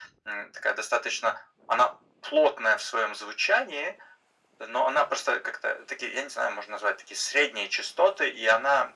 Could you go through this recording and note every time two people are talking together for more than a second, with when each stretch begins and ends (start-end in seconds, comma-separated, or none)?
none